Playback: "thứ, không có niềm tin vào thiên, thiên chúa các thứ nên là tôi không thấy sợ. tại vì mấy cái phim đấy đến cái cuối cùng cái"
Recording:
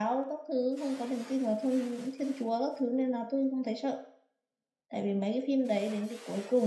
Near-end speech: none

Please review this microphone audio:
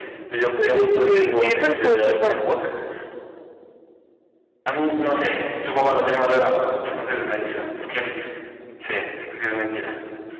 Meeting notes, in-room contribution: present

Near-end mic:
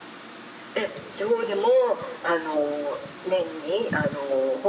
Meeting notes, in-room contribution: none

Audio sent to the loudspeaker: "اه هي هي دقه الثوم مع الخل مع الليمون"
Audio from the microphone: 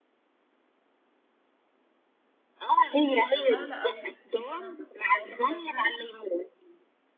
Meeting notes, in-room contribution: present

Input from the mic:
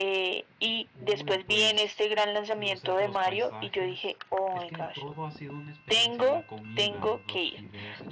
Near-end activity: present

